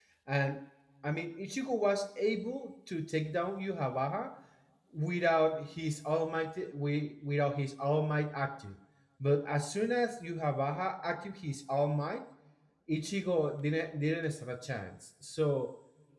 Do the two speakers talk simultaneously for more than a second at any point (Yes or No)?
No